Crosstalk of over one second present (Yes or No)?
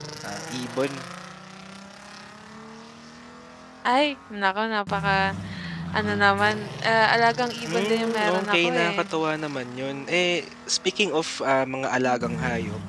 Yes